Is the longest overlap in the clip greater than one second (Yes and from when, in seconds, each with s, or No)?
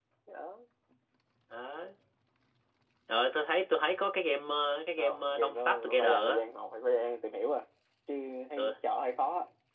Yes, from 5.0 s